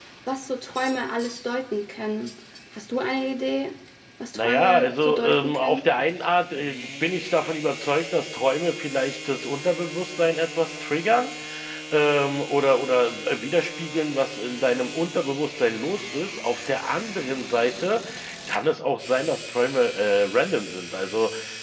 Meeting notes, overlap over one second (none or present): present